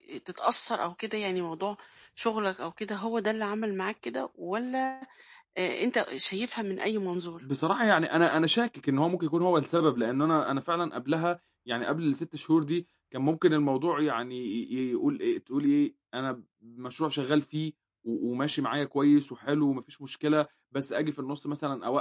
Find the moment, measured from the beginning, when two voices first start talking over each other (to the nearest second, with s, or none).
none